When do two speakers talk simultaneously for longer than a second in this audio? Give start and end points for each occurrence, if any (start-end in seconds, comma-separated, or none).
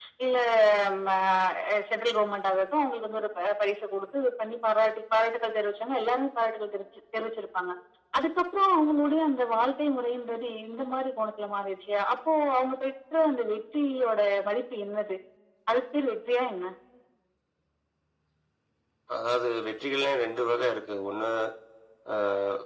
none